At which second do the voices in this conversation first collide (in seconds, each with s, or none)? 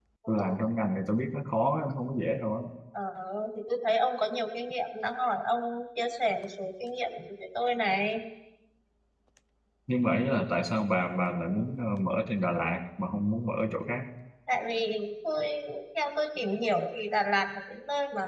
none